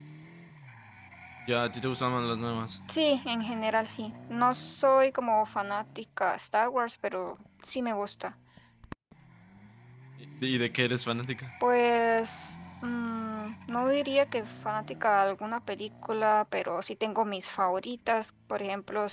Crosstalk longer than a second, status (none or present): none